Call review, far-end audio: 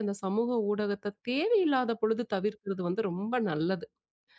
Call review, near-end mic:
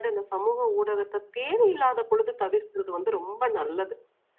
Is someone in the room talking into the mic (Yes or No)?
No